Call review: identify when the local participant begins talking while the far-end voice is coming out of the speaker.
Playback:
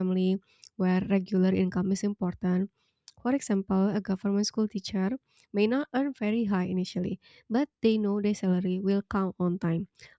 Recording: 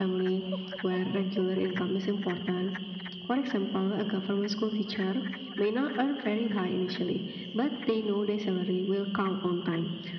none

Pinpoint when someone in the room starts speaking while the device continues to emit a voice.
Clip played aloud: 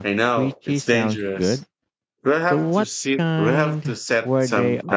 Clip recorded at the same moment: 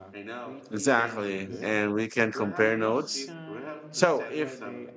0.7 s

